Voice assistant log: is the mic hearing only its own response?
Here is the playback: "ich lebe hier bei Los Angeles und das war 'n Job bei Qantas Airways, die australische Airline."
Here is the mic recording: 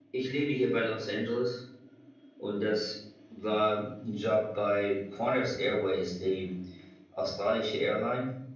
Yes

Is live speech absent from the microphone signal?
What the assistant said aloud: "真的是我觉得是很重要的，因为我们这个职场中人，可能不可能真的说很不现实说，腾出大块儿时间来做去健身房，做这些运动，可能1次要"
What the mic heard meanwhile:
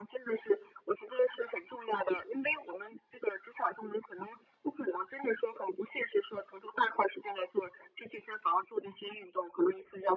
Yes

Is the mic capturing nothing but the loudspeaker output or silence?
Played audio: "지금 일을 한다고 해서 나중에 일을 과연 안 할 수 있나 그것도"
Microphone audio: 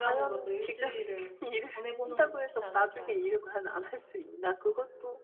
No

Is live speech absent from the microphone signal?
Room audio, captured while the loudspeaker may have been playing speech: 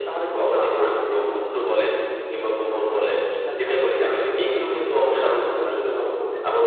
Yes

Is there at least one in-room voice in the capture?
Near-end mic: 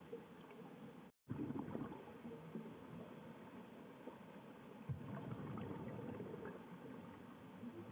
No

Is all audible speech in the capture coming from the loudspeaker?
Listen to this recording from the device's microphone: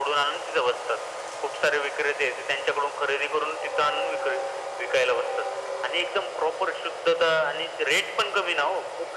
Yes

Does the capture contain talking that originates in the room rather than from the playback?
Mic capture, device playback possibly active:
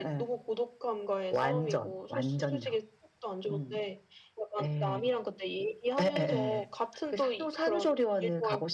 No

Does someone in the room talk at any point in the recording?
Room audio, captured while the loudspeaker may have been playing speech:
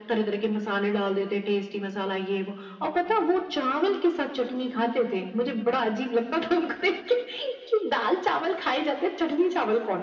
No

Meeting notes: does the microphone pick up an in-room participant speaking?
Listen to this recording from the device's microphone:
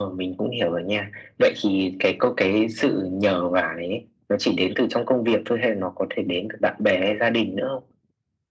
No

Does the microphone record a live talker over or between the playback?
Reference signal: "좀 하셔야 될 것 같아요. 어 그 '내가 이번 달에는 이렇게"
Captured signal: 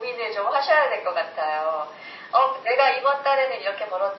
No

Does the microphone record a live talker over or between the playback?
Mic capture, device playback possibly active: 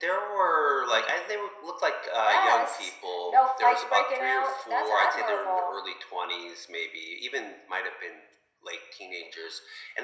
No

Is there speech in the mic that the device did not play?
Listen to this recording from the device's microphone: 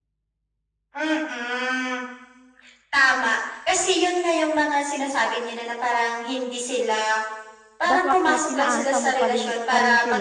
Yes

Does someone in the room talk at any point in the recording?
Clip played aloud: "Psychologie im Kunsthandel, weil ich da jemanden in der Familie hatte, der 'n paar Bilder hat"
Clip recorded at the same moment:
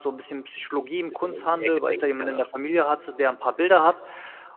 Yes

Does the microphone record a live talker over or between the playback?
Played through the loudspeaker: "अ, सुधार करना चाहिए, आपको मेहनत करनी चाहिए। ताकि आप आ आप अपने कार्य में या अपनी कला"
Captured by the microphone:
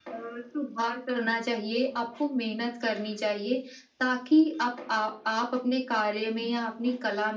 No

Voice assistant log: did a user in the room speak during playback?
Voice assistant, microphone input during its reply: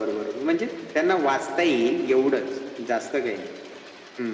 No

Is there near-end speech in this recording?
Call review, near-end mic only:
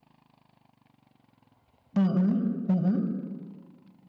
Yes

